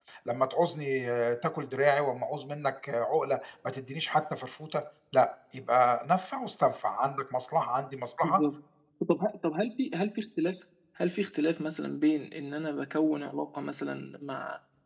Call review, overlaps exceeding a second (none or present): none